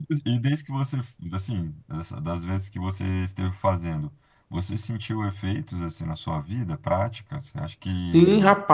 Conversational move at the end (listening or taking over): taking over